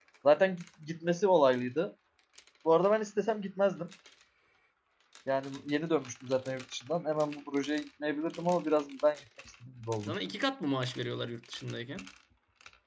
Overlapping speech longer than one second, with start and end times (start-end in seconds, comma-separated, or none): none